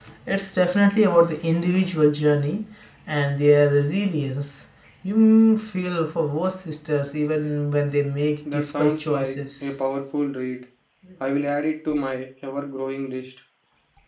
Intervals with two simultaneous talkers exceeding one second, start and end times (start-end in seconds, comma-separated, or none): 8.5-9.7